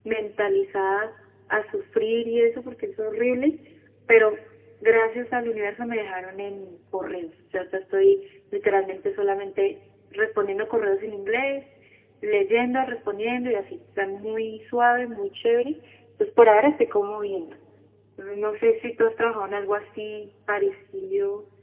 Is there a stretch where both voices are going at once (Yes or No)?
No